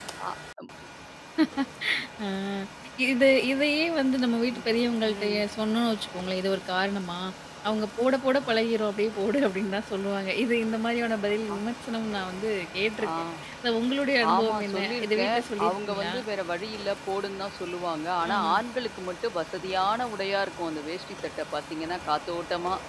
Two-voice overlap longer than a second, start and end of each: 14.3-16.1

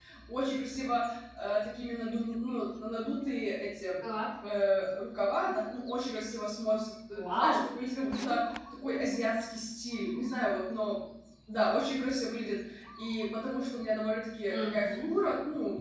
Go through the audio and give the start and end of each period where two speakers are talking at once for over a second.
none

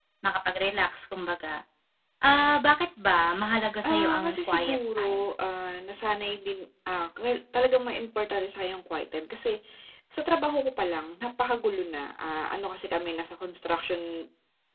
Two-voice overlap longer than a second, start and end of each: 3.9-5.3

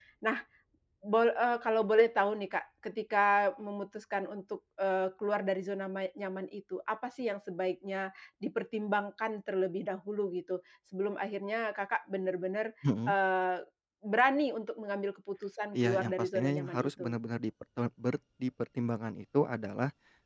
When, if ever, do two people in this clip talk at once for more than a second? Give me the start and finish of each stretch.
15.7-17.2

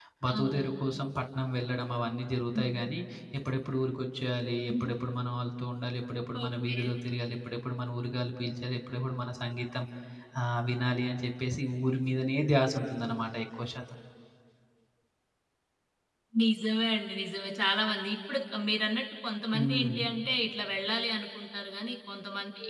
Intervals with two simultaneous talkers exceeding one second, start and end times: none

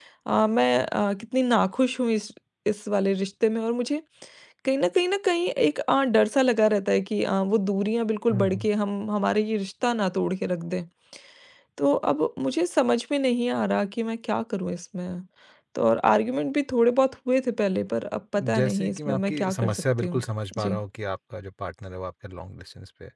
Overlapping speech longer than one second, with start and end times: 18.5-20.2

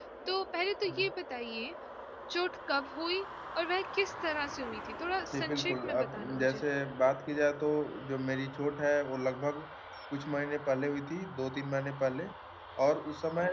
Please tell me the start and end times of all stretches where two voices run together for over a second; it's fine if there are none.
5.3-6.6

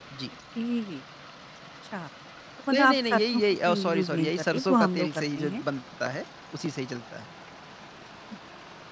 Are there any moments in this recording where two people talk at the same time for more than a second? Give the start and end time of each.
2.7-5.6

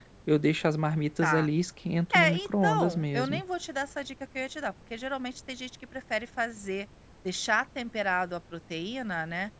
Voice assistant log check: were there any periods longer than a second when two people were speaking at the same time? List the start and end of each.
2.1-3.4

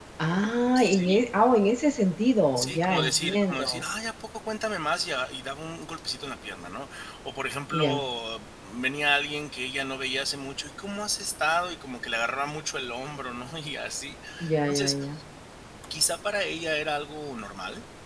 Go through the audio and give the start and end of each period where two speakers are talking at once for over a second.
2.6-3.8

